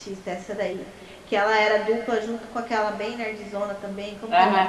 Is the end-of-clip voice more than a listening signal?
Yes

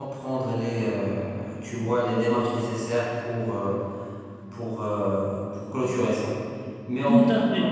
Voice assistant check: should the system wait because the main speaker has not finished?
No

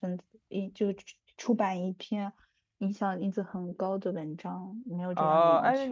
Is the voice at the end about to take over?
Yes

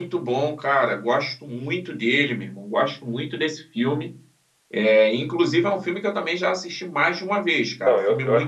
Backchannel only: No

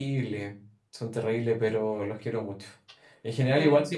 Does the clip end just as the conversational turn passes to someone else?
No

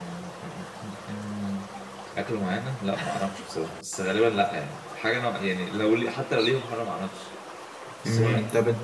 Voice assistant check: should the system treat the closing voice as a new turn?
Yes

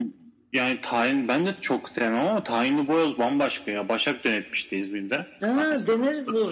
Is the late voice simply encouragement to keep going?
No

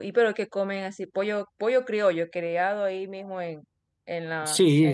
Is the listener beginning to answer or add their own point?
Yes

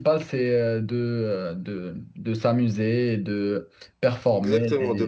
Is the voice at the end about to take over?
Yes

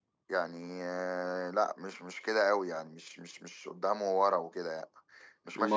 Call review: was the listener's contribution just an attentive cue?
Yes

